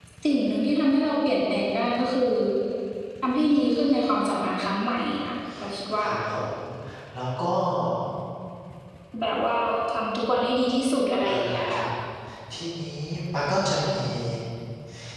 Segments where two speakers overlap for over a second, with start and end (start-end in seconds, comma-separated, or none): none